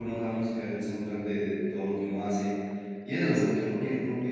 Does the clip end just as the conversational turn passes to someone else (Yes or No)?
No